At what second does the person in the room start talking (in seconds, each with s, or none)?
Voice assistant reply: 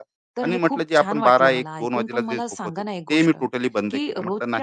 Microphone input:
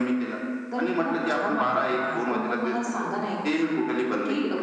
none